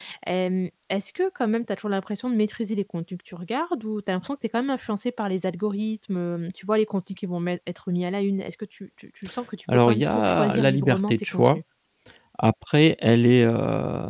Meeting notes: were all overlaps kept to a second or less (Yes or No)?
No